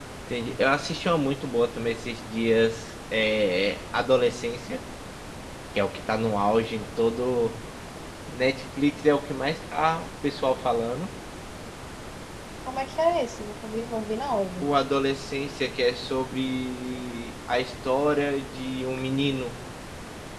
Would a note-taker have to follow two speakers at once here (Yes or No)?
No